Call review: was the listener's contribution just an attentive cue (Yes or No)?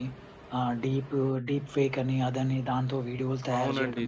No